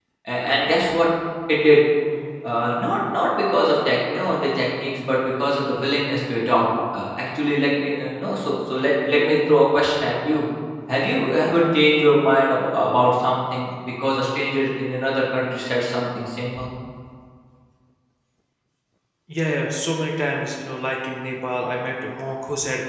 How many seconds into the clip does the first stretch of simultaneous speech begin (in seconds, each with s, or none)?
none